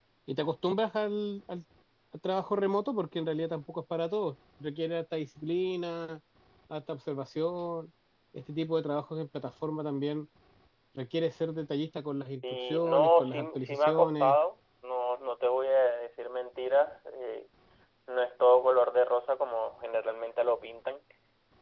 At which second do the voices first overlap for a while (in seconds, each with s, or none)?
12.7 s